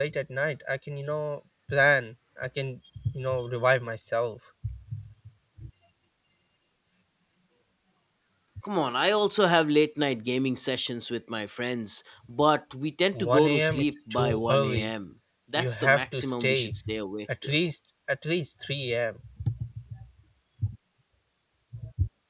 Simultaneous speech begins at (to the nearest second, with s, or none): 13 s